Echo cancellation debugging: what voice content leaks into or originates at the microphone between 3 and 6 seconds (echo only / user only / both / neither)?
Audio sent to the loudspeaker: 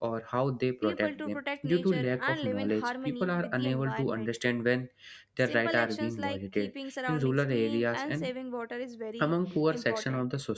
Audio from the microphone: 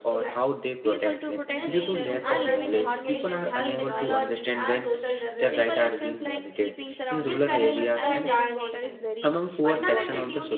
both